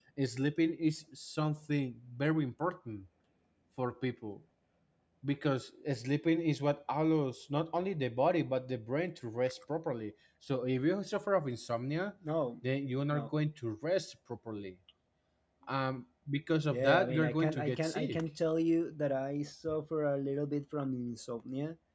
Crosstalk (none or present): present